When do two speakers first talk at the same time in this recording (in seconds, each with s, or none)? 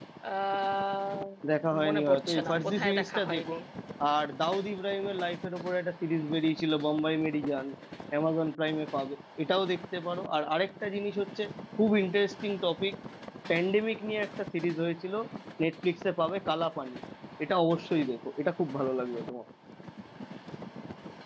1.8 s